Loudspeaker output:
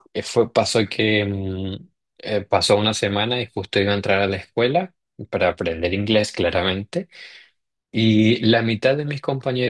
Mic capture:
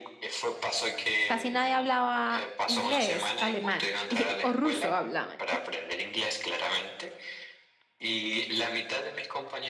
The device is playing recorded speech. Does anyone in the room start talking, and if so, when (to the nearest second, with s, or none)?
1 s